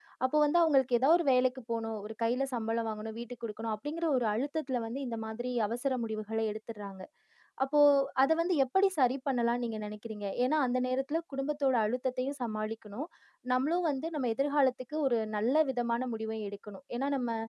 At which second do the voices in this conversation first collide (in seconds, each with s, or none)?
none